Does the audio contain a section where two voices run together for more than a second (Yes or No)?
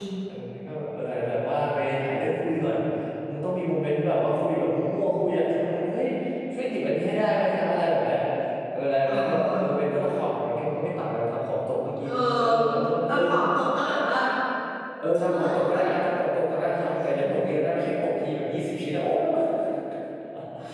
No